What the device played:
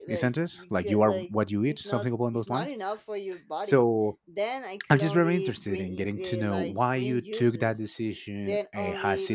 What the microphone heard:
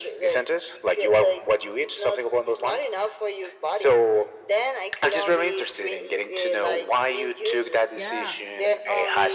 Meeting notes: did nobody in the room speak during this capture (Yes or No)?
No